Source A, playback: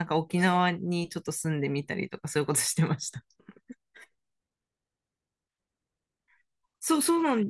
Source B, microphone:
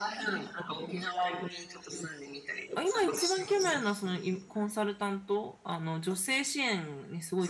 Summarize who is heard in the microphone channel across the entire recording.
both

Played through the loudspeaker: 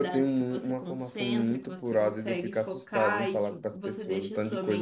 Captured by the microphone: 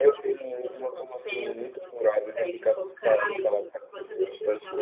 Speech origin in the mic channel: echo only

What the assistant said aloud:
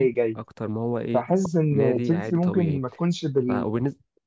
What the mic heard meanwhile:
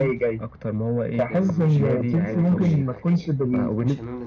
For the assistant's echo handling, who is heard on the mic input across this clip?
both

